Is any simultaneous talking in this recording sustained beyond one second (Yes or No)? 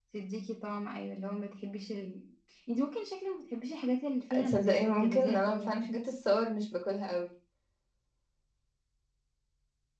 Yes